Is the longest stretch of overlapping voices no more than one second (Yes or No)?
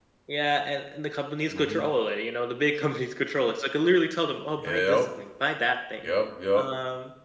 Yes